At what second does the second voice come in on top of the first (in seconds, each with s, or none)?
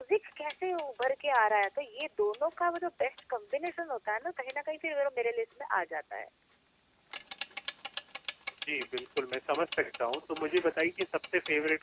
none